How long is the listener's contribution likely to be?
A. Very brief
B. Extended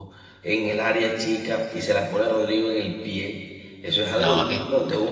A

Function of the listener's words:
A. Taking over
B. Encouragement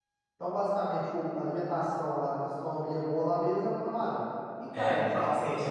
A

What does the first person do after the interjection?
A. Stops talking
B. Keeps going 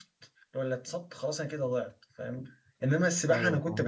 B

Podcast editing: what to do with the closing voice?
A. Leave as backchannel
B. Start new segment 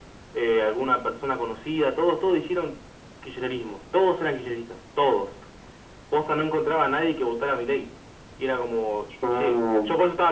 A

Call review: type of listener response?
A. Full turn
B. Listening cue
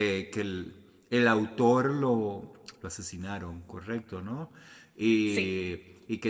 B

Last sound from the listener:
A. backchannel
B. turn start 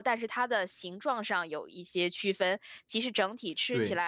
A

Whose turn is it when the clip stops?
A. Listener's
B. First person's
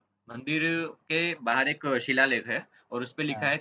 B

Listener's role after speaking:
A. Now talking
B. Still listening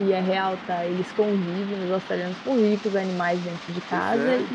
B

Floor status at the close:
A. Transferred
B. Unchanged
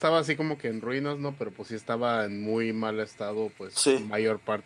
B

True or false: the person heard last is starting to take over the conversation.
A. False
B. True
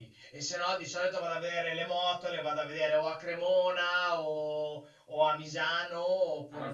B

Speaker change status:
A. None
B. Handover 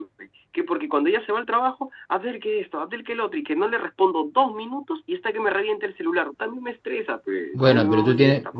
B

